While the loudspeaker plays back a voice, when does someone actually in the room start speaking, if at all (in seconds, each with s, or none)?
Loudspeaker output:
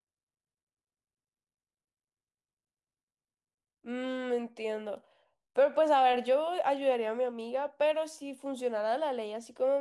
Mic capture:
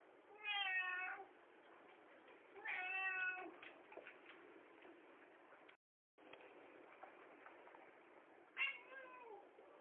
none